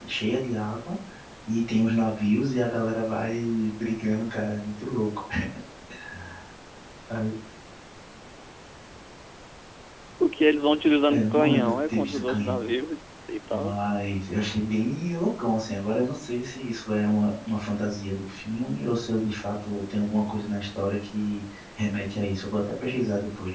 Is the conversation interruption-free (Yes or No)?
No